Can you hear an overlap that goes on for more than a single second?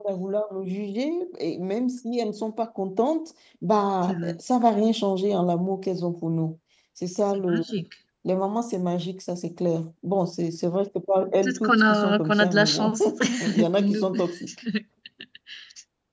Yes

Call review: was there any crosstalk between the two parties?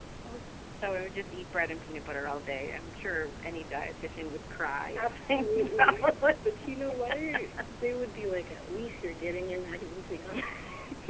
Yes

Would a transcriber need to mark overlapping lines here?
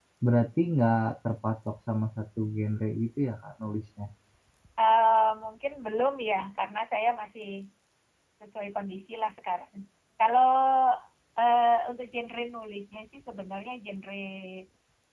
No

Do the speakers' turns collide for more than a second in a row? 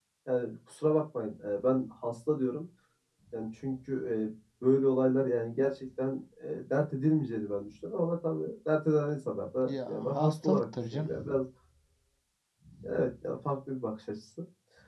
Yes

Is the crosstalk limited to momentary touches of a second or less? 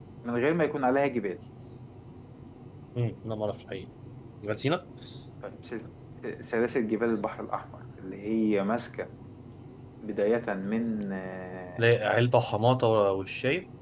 Yes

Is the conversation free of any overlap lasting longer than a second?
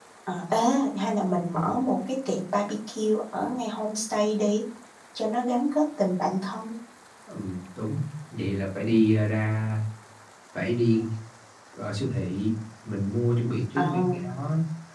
Yes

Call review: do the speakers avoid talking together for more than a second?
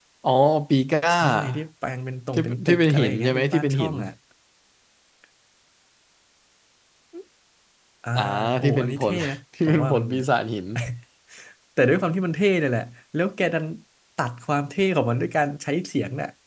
No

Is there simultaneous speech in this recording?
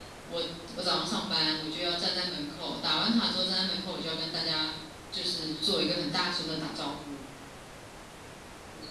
No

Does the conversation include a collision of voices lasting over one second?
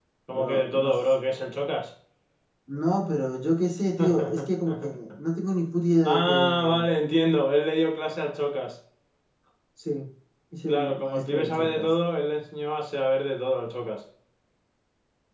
Yes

